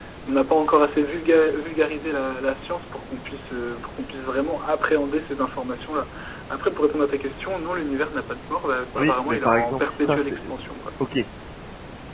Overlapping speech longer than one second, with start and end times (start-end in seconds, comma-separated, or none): 9.0-10.4